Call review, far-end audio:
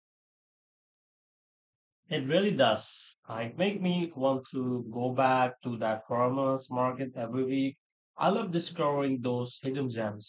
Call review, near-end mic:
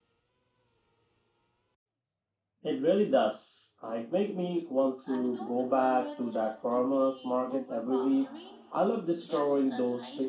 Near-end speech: present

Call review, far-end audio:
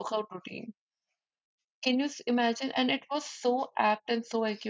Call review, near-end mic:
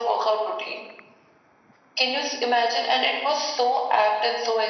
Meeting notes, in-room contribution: none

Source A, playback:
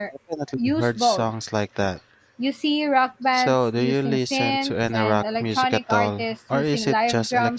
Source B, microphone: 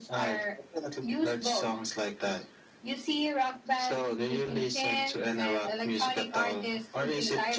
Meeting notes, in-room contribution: none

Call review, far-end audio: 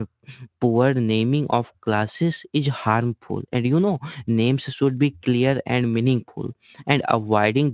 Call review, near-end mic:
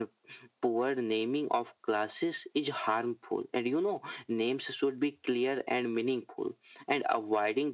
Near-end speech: none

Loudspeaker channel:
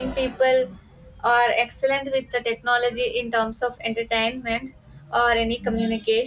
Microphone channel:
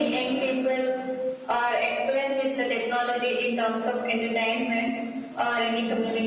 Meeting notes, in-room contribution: none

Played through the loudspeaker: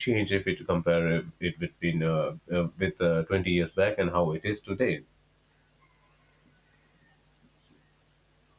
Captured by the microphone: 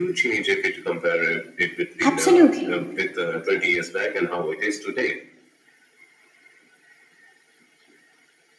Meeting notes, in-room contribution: present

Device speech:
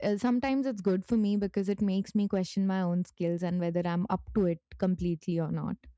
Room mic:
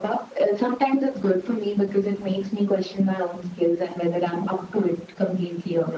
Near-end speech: none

